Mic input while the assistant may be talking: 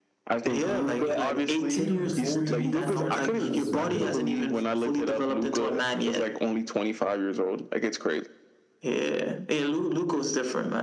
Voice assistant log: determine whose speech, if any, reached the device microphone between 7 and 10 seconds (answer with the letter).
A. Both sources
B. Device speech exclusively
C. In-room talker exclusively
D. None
B